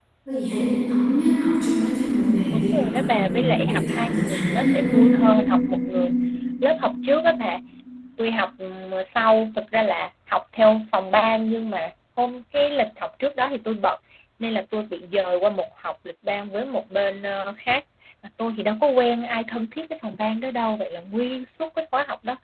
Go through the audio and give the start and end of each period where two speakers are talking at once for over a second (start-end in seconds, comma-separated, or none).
2.5-5.2